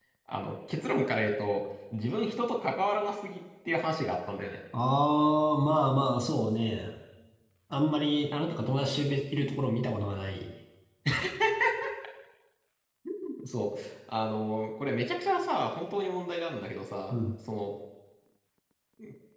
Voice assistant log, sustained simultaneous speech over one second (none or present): none